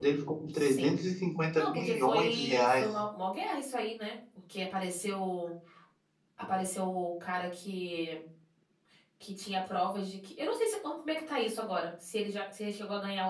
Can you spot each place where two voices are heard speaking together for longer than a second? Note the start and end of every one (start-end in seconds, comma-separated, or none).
1.6-2.9